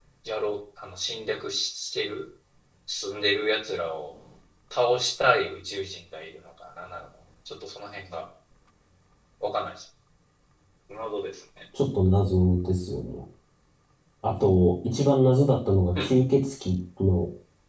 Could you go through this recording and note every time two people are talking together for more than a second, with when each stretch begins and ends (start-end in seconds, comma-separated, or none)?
none